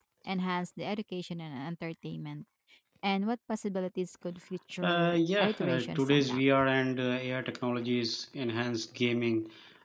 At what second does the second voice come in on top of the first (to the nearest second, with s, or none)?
5 s